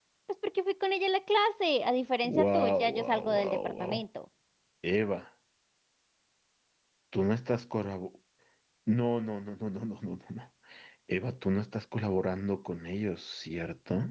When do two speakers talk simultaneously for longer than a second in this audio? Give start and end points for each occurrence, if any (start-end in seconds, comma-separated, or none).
2.2-4.0